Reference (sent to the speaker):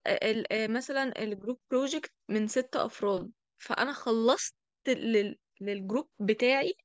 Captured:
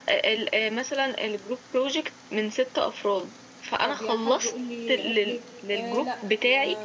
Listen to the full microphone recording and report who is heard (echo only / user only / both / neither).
both